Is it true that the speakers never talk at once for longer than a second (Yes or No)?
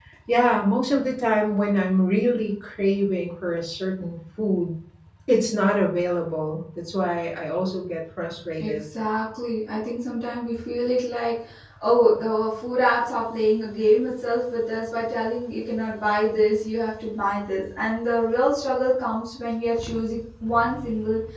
Yes